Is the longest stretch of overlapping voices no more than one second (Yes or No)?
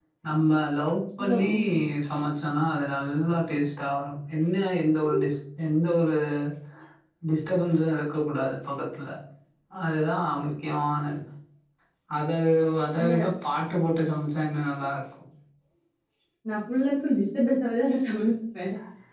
Yes